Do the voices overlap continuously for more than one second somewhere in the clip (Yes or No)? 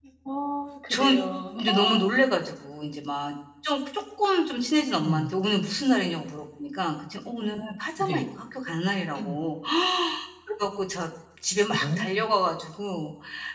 No